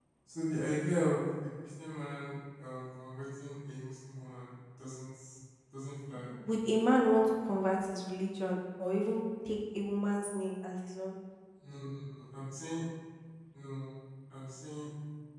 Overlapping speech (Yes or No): No